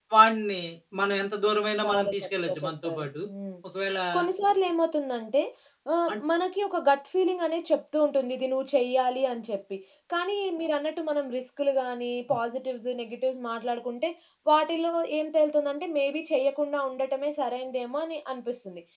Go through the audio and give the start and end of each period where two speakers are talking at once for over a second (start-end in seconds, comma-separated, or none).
1.8-3.1